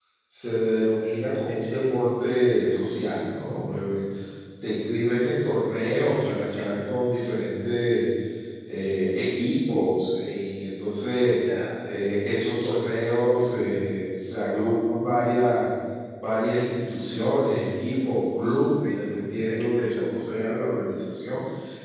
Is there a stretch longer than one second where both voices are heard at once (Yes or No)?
Yes